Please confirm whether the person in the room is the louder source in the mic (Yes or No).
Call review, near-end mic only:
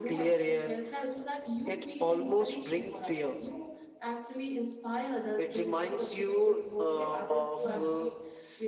No